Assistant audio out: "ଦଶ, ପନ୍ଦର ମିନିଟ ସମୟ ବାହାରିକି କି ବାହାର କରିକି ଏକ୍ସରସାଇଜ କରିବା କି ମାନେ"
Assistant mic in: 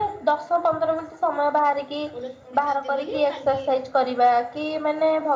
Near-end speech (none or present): present